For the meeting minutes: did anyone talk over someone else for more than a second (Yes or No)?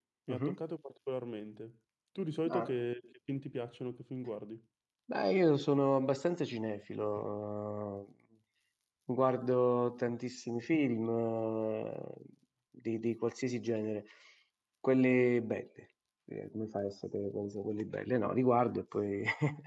No